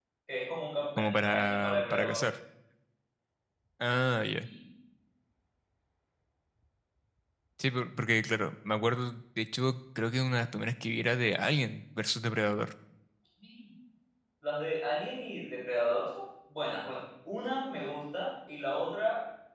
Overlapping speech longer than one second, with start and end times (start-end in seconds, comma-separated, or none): 1.0-2.3